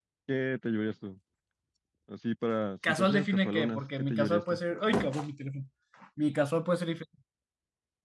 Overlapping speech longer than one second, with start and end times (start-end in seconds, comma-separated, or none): 2.9-4.6